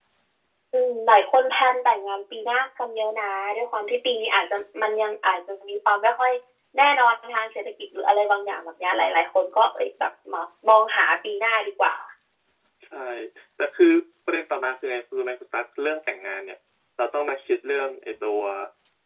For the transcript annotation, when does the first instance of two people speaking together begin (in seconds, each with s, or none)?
none